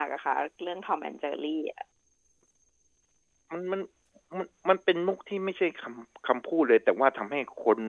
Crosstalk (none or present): none